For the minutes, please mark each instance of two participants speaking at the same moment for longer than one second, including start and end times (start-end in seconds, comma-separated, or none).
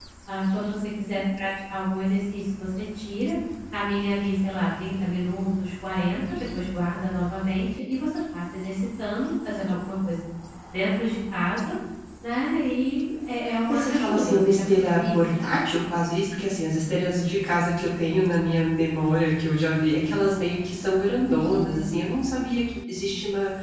13.7-15.2